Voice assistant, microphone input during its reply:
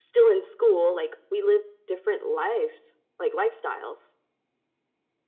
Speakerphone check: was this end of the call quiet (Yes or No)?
Yes